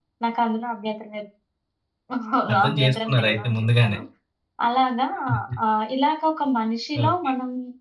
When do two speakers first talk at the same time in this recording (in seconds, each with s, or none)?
2.5 s